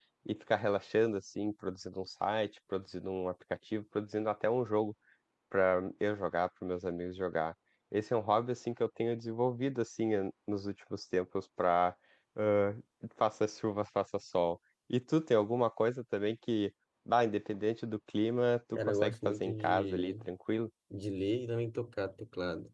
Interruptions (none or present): present